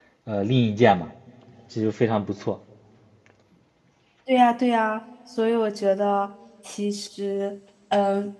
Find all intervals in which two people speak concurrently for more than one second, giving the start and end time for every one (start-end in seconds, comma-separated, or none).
none